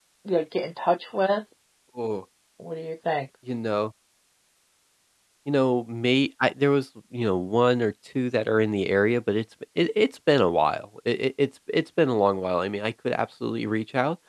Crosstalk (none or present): none